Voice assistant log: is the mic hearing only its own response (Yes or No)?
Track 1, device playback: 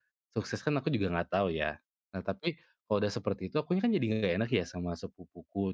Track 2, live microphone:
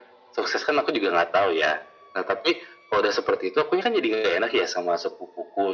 Yes